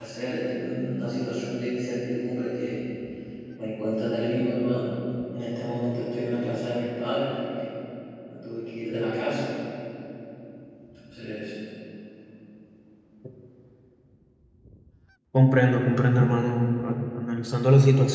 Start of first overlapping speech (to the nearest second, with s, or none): none